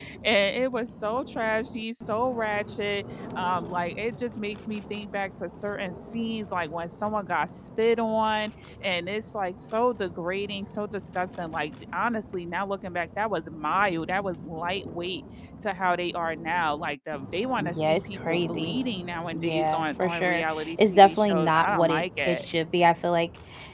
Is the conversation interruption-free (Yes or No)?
No